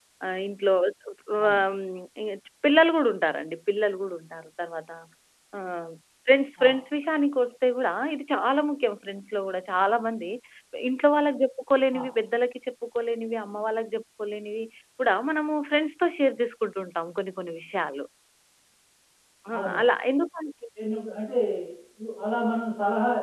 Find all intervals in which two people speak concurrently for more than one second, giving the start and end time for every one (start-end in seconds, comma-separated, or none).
none